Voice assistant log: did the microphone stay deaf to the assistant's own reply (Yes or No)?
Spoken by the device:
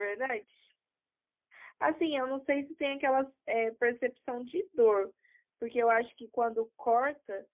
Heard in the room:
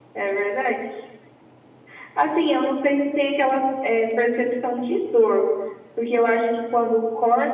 No